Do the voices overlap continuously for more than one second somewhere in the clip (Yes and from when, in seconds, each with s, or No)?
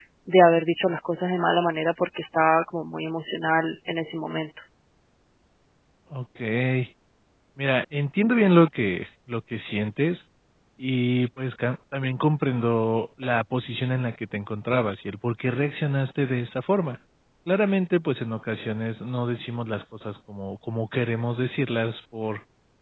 No